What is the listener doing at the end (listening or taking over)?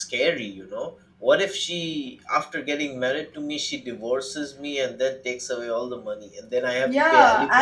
taking over